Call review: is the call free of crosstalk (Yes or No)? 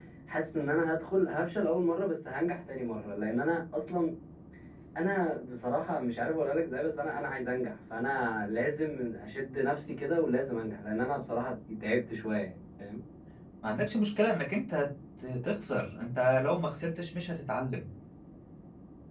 Yes